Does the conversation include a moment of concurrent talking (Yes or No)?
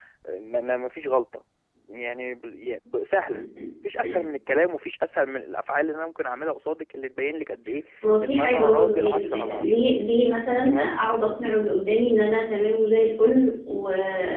Yes